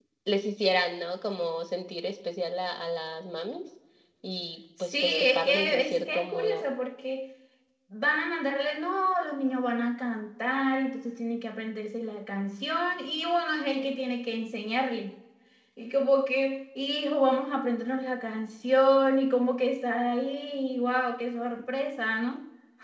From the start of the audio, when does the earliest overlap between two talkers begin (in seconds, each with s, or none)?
4.8 s